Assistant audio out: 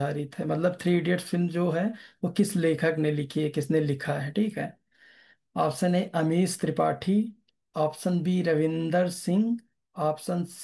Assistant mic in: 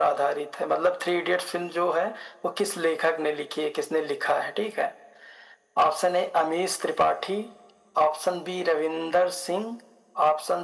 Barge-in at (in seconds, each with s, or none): none